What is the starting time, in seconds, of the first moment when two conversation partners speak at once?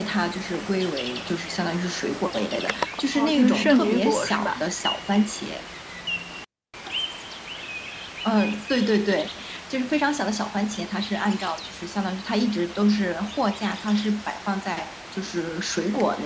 3.2 s

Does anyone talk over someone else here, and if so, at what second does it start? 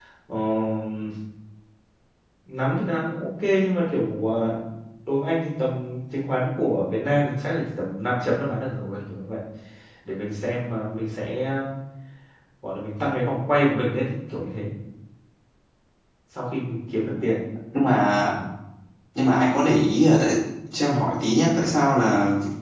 none

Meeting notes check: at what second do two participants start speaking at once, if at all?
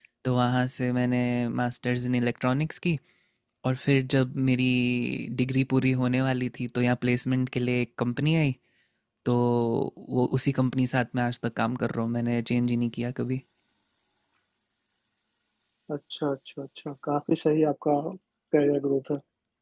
none

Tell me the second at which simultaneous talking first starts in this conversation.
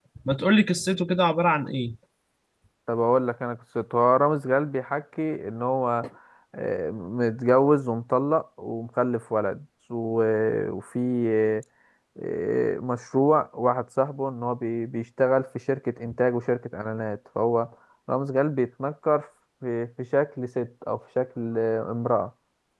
none

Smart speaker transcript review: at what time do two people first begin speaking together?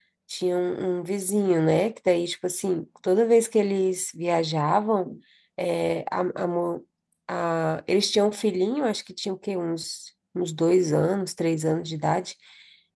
none

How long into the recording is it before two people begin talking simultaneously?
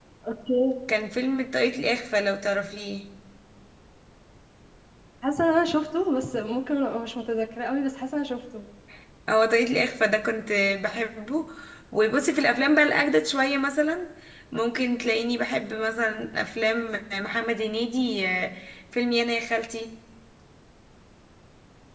none

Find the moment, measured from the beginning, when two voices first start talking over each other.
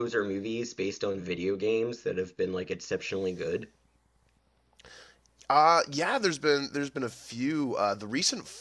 none

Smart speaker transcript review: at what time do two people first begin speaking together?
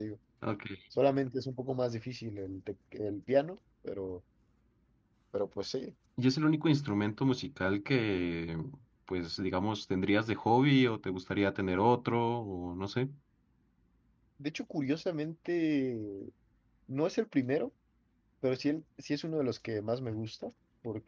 none

